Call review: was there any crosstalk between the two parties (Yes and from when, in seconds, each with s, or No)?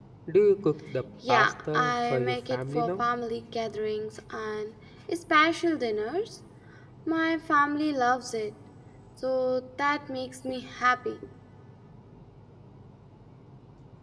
Yes, from 1.3 s